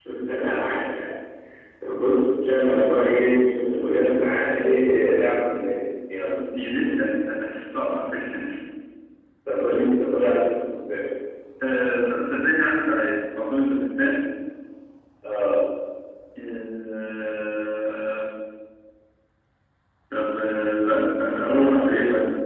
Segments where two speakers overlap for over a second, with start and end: none

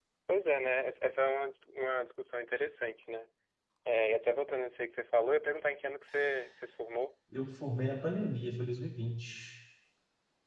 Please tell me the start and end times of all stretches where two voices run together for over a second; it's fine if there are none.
none

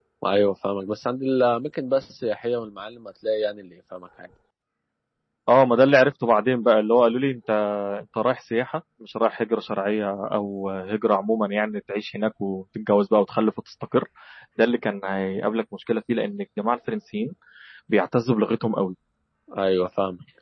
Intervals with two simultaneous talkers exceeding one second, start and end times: none

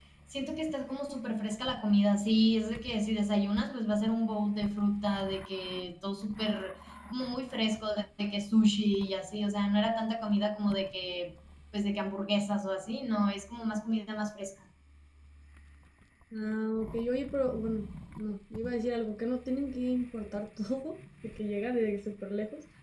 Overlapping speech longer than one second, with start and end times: none

